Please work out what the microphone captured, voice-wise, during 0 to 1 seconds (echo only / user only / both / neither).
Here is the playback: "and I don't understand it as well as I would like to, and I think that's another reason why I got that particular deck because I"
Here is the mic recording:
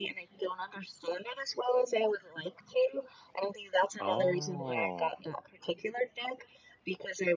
echo only